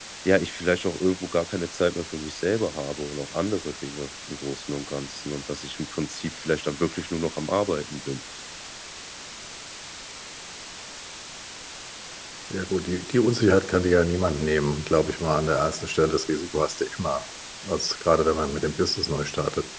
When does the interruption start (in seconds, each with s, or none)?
none